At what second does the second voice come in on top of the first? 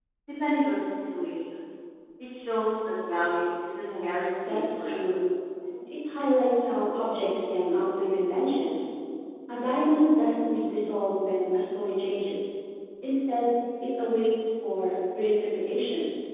3.8 s

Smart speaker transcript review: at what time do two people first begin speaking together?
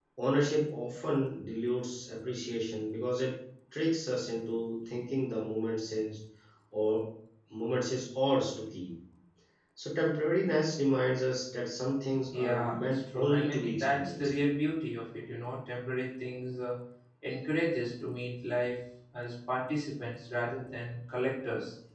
12.3 s

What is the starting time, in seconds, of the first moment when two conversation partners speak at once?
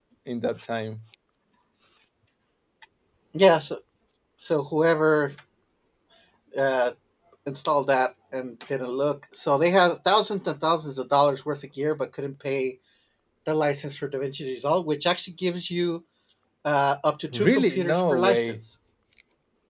17.3 s

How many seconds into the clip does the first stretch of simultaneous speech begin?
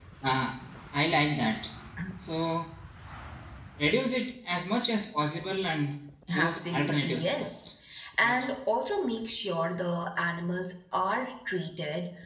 6.4 s

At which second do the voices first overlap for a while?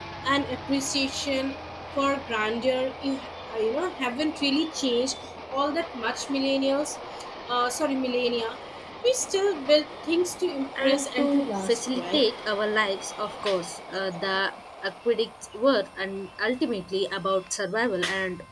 10.8 s

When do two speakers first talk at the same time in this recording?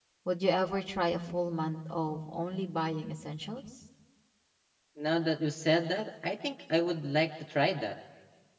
none

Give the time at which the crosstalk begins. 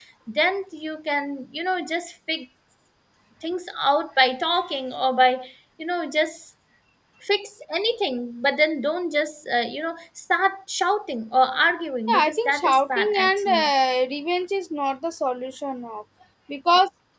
12.1 s

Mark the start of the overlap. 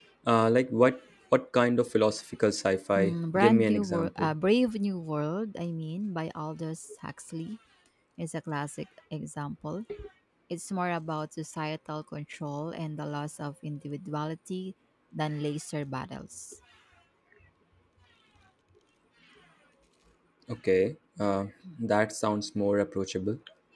3.0 s

